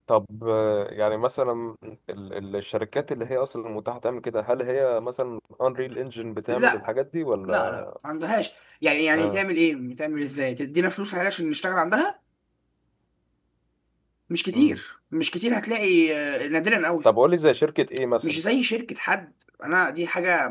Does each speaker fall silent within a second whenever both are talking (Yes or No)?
Yes